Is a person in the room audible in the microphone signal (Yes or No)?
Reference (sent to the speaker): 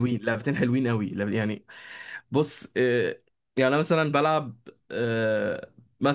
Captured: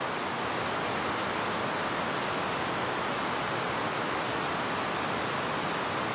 No